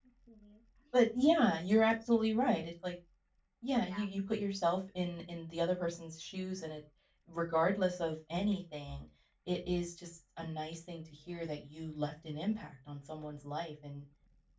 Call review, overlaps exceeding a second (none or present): none